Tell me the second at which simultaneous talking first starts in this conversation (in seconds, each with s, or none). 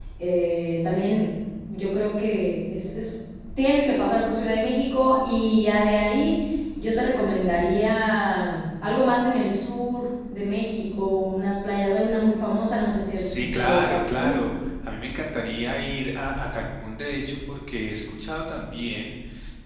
13.2 s